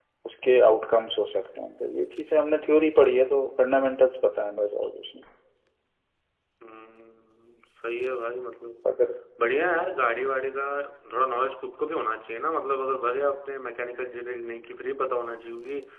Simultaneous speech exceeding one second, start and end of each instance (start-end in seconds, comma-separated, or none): none